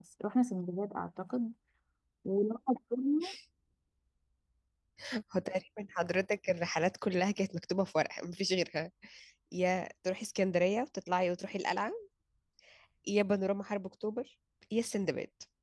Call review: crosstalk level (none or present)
none